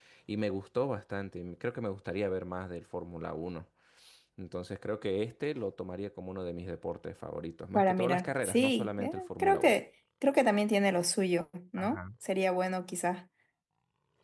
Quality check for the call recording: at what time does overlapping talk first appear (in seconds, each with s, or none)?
7.7 s